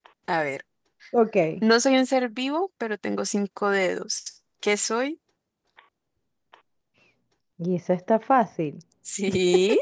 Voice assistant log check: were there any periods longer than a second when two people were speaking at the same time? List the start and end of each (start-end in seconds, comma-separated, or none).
none